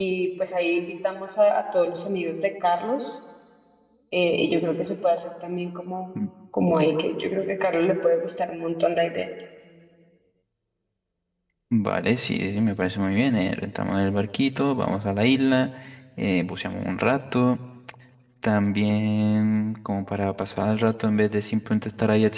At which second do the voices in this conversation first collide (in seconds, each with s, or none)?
none